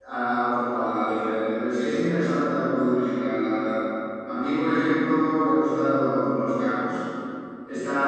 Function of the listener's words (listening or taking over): listening